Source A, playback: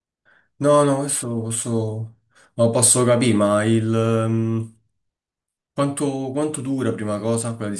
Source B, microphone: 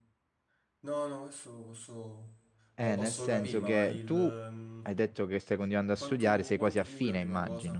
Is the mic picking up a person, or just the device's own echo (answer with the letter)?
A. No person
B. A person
B